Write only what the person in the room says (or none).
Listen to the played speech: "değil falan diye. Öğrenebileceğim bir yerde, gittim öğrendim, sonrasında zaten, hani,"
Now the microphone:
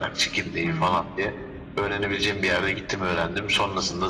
Hıı.